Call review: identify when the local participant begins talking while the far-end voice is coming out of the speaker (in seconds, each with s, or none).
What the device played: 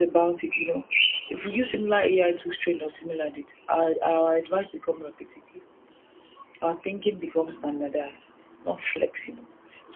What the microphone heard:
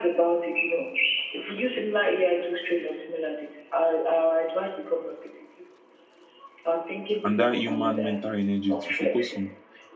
7.2 s